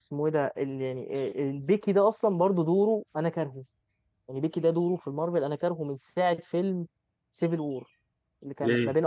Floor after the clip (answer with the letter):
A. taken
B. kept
B